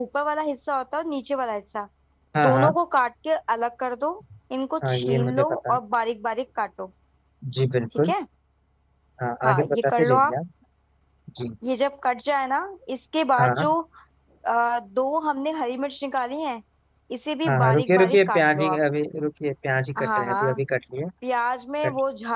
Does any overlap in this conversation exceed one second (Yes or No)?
Yes